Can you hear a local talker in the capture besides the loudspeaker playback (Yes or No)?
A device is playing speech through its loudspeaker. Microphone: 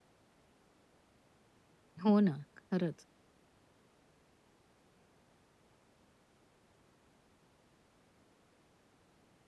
Yes